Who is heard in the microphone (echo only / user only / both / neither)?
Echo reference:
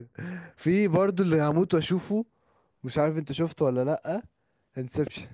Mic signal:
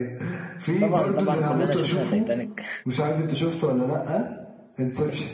both